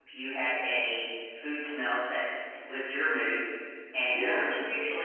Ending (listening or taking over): listening